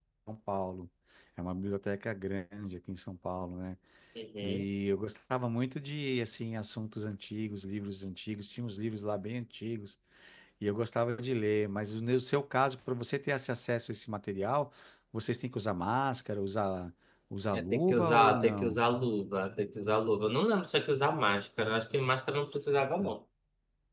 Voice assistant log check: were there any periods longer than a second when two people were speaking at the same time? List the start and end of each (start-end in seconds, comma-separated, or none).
17.5-18.8